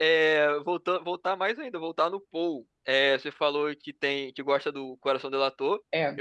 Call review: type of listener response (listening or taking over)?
listening